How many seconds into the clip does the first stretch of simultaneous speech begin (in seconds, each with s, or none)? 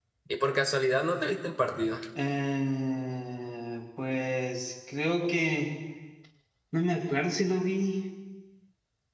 none